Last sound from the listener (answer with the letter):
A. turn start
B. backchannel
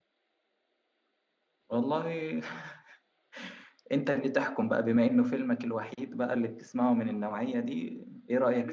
A